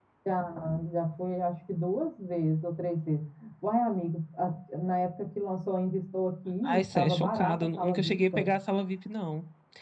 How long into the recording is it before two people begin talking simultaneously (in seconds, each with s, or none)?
6.6 s